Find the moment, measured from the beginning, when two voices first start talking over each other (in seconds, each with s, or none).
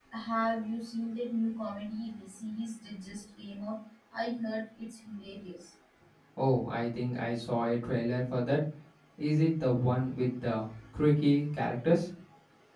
none